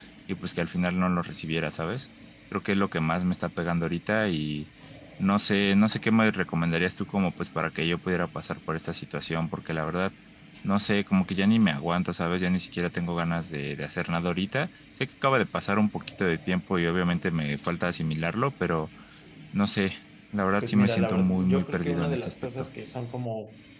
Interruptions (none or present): present